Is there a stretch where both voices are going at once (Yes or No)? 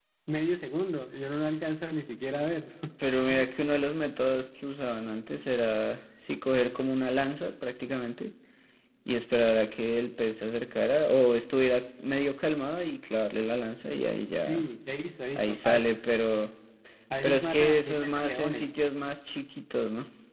Yes